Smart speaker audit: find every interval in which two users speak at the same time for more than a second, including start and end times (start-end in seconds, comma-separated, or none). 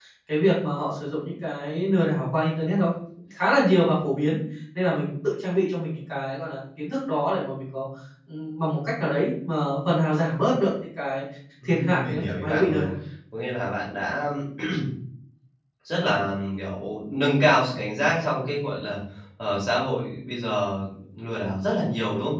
11.6-12.8